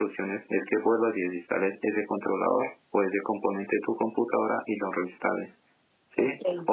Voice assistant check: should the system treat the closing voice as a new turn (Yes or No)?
No